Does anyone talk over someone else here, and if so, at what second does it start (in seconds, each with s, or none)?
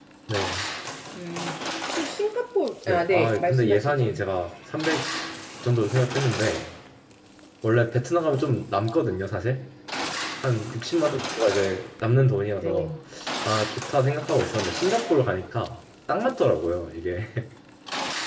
2.9 s